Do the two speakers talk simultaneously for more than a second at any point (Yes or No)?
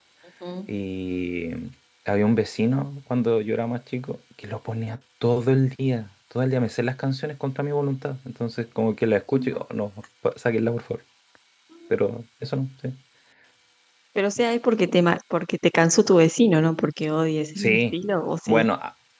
No